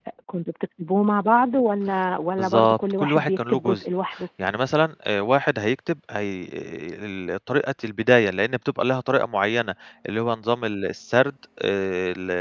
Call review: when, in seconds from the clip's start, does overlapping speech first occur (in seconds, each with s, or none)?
2.4 s